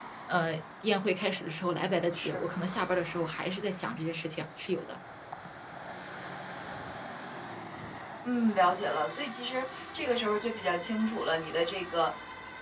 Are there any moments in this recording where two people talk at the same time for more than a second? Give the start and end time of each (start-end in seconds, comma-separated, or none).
none